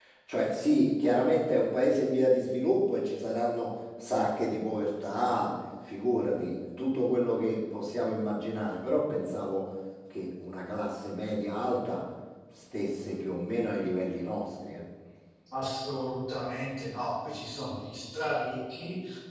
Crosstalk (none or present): none